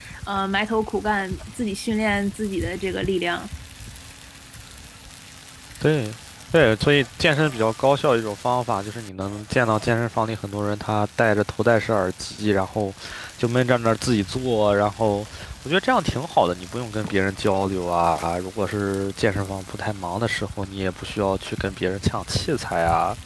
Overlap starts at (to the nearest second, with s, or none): none